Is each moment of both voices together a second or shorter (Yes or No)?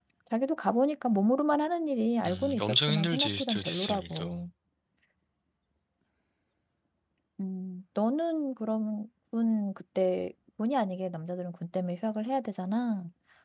No